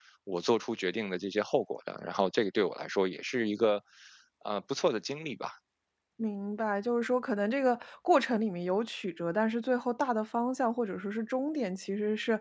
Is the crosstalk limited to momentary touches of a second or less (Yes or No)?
Yes